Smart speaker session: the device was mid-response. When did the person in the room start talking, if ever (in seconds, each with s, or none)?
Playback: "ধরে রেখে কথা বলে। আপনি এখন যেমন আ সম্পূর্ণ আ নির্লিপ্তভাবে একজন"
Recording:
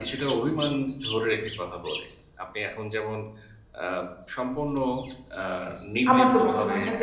6.1 s